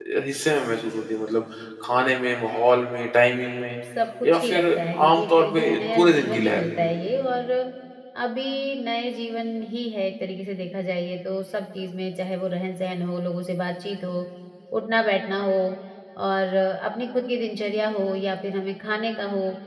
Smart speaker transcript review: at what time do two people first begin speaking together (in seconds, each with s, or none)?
4.2 s